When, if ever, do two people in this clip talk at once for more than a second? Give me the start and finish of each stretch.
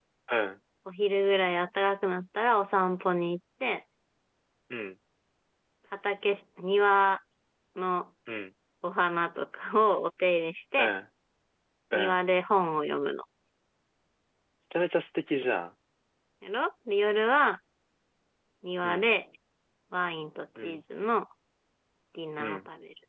none

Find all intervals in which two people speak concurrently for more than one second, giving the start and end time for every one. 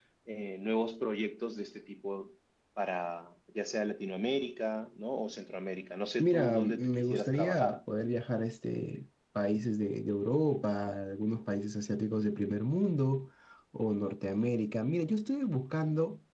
6.2-7.8

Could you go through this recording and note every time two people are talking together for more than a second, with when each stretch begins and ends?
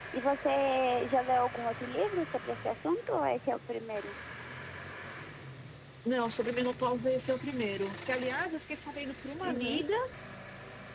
none

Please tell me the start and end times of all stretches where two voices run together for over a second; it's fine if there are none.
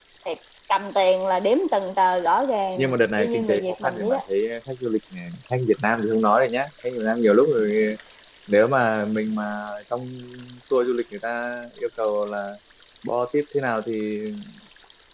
2.8-4.2

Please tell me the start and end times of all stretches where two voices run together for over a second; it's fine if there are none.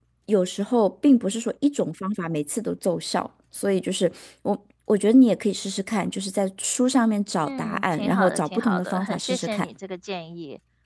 7.4-9.6

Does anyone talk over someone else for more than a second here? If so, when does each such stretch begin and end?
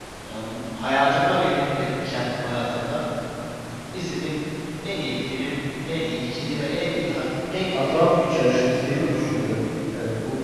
7.7-9.4

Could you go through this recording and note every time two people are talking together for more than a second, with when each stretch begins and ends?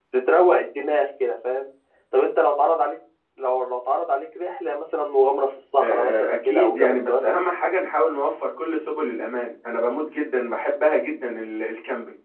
5.8-7.3

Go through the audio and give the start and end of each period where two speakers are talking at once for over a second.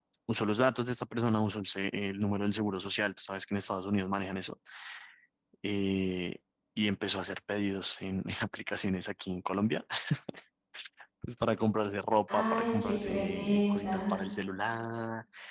12.3-14.2

